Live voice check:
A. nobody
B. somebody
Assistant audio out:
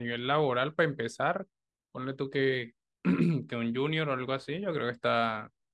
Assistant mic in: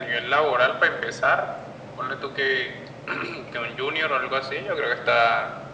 A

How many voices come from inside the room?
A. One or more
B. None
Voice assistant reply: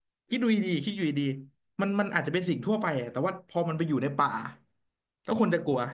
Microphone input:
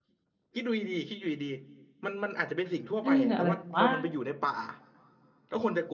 A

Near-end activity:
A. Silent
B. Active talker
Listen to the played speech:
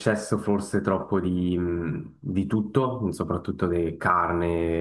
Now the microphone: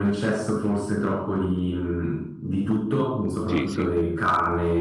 B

